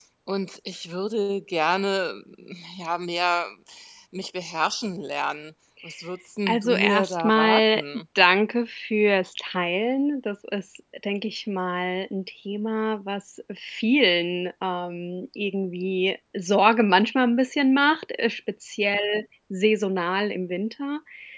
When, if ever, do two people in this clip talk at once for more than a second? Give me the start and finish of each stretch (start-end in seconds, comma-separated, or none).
6.5-7.8